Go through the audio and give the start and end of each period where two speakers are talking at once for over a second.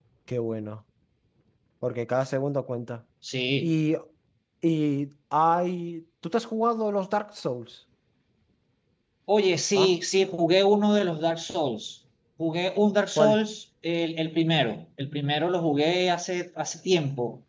none

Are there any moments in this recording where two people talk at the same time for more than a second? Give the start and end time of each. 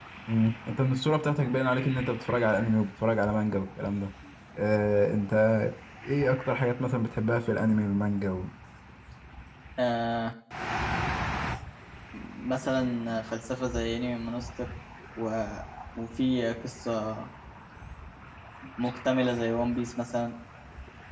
none

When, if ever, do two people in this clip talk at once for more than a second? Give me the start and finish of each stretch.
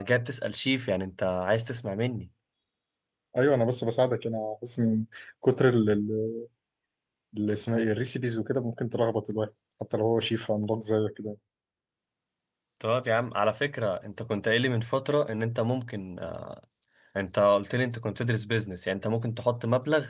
none

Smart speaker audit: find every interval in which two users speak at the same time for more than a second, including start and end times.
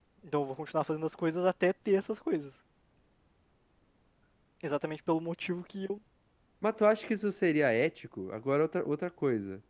none

